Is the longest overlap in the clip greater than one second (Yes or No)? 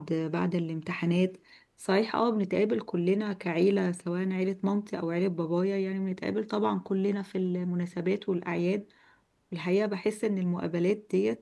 No